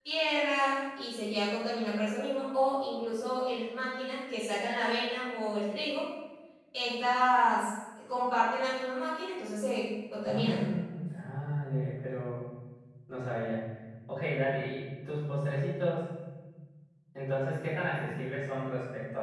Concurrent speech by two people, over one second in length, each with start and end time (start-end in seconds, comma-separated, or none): none